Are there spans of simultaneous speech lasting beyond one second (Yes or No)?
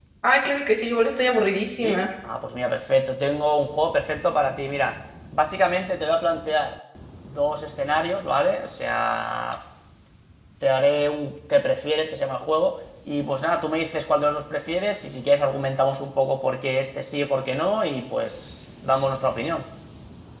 No